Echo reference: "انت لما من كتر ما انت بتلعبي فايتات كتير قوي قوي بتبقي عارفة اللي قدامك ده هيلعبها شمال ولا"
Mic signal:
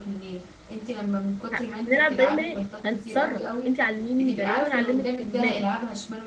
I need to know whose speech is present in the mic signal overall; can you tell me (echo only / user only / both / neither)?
both